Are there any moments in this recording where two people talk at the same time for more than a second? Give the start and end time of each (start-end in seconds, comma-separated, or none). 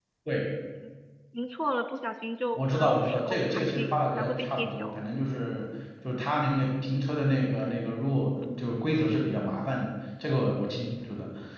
2.5-5.0